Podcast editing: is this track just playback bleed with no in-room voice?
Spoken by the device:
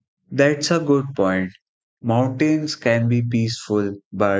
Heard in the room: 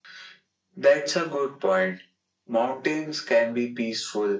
Yes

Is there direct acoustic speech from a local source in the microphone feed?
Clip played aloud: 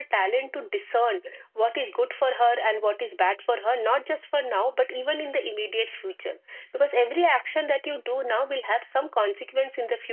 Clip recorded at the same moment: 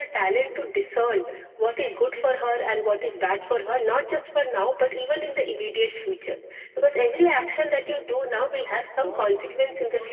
Yes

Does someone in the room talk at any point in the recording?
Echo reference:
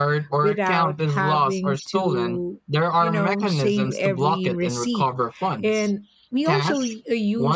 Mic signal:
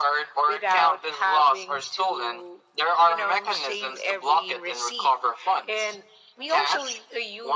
No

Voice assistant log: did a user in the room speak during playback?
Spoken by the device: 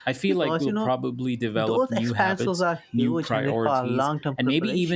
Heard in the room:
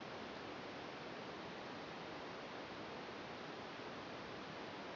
No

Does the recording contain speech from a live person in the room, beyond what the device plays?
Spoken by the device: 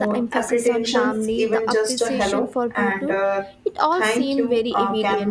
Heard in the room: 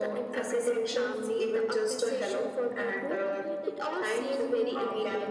Yes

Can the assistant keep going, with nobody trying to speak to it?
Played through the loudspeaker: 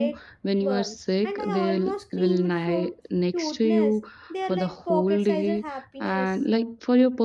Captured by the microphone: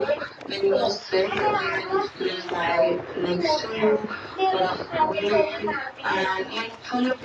Yes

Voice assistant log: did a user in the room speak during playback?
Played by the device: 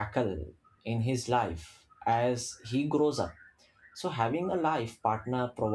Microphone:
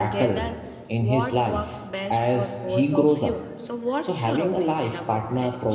Yes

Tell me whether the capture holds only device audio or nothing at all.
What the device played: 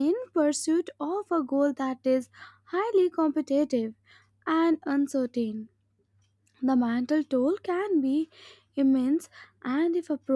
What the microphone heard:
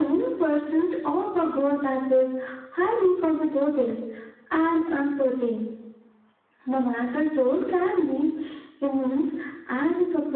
Yes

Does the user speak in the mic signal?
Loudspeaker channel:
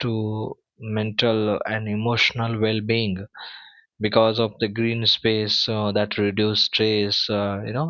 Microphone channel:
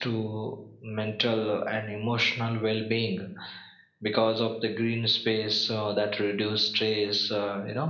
No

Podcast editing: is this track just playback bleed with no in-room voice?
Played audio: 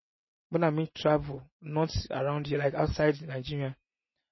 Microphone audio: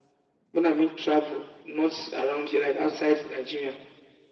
Yes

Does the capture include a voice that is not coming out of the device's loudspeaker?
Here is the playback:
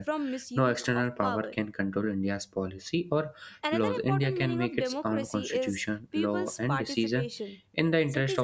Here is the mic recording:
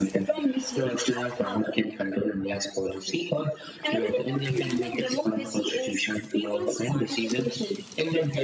No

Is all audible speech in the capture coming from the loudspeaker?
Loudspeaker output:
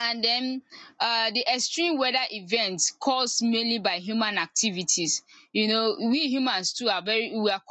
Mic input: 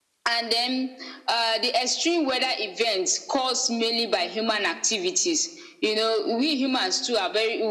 Yes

